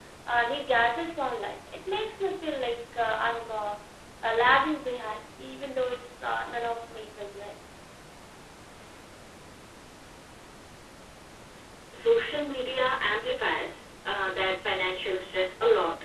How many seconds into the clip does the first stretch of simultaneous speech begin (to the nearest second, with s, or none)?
none